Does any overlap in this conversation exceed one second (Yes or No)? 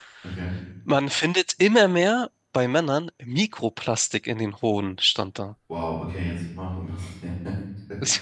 No